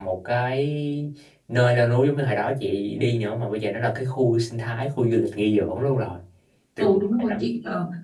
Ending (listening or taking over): taking over